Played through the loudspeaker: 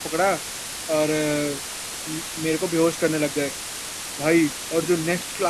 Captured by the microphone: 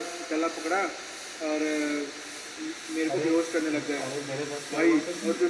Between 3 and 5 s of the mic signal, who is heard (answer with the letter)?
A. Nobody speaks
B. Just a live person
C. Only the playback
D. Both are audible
D